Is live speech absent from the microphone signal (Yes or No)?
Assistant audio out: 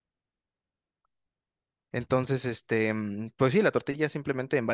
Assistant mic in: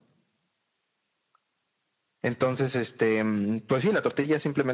Yes